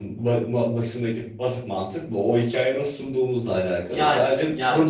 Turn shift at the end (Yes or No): No